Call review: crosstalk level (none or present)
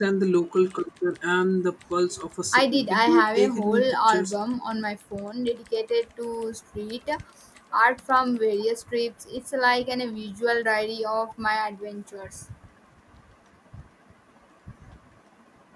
present